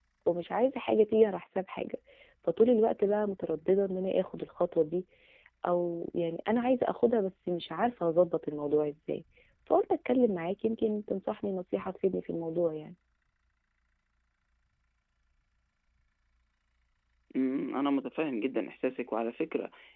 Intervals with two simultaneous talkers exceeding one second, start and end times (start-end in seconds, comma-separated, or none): none